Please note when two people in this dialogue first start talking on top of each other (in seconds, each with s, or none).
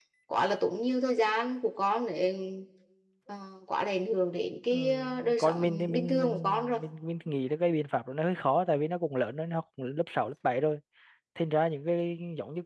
4.7 s